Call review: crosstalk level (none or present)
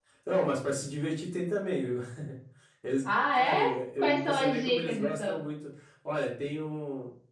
present